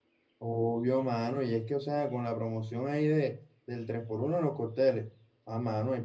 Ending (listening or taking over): listening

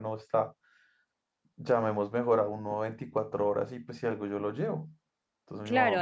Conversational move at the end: taking over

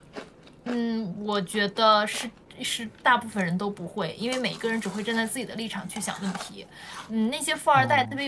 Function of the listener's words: listening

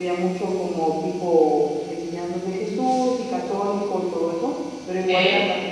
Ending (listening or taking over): listening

